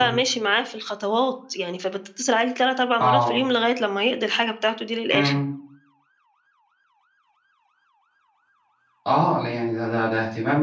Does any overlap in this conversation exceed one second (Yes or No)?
No